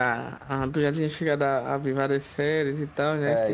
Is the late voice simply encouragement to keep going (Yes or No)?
No